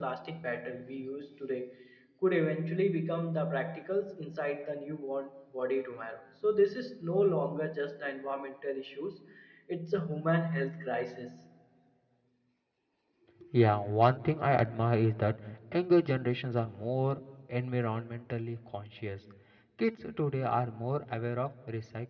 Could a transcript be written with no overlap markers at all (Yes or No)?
Yes